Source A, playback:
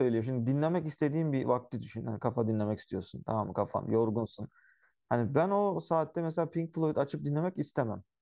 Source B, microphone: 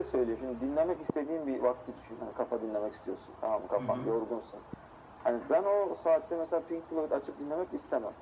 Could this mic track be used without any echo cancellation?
No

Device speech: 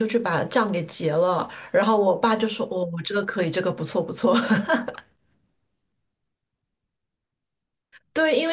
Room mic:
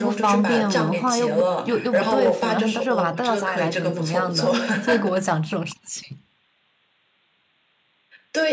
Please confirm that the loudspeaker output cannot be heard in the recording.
No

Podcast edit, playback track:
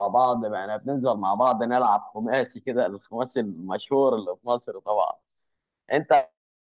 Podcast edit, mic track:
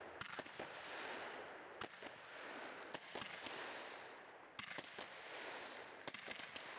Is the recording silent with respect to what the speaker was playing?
Yes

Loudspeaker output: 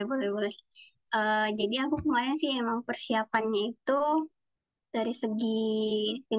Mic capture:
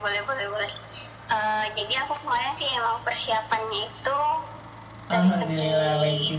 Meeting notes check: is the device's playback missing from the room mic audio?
No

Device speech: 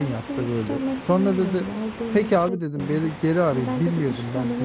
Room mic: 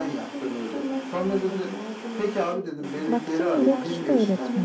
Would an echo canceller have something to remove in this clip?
Yes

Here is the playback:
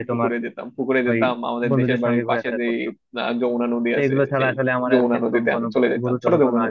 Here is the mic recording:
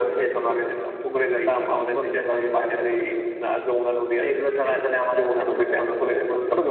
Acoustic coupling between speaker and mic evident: Yes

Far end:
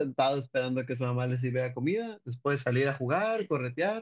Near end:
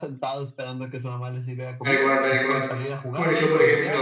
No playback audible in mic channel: No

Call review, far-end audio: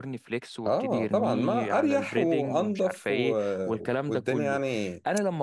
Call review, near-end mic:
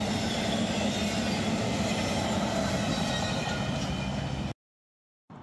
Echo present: No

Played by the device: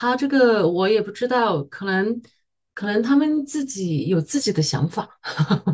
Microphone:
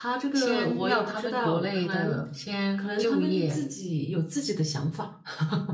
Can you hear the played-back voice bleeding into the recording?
Yes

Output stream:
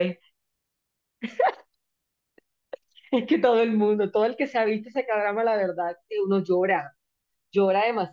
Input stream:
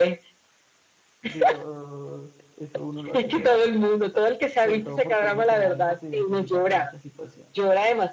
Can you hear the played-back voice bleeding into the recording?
Yes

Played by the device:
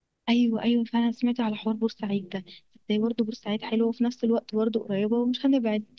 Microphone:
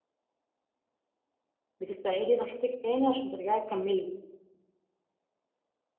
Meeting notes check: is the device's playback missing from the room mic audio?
Yes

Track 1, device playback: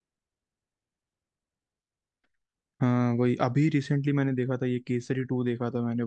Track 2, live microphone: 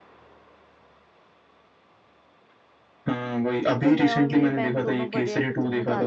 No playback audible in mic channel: No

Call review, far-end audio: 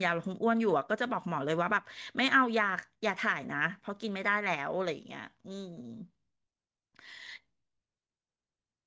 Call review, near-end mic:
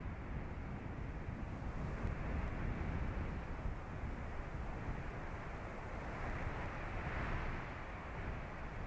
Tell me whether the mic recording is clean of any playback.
Yes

